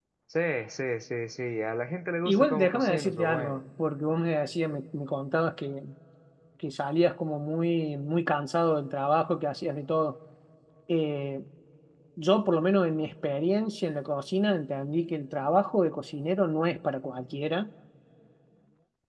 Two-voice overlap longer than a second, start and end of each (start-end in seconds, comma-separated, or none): 2.2-3.6